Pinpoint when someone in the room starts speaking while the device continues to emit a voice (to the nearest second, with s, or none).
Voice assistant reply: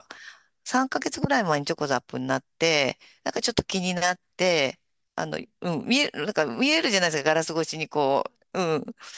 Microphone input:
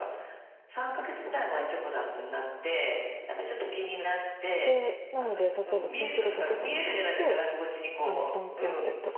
5 s